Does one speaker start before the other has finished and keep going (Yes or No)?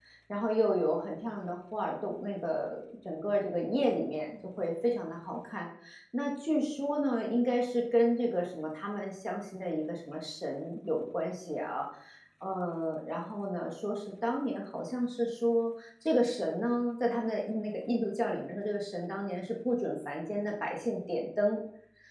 No